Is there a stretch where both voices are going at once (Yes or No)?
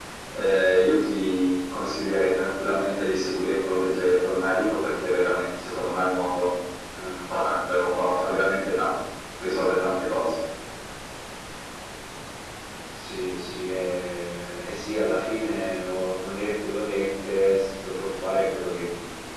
No